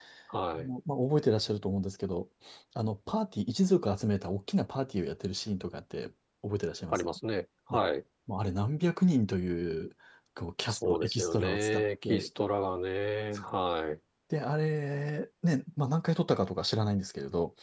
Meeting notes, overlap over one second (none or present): present